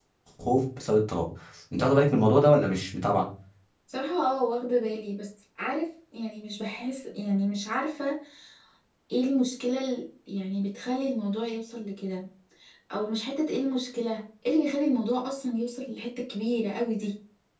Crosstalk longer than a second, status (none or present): none